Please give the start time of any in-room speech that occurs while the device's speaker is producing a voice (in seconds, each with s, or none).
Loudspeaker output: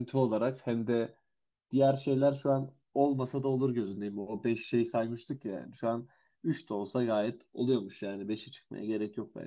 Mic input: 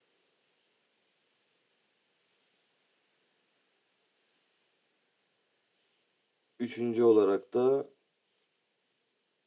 6.6 s